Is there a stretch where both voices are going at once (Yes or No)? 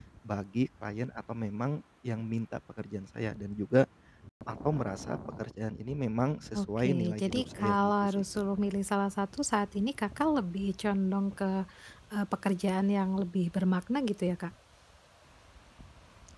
Yes